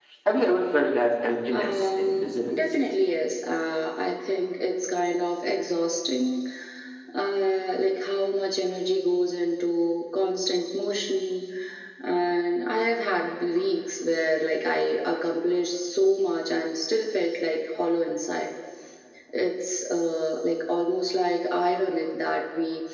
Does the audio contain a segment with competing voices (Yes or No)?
Yes